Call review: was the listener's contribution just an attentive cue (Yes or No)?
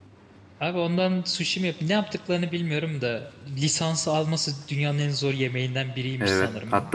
No